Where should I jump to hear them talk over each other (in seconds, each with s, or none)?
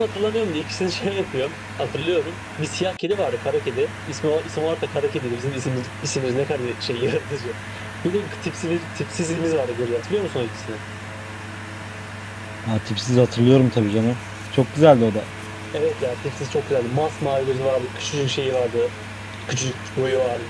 none